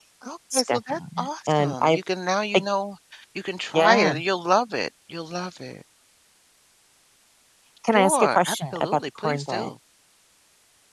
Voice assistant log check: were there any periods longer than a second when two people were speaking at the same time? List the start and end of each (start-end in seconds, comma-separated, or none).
0.5-2.0, 7.9-9.7